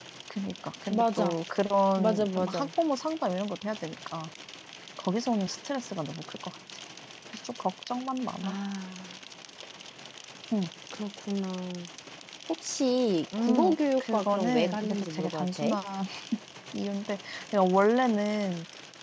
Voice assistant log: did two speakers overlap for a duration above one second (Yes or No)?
Yes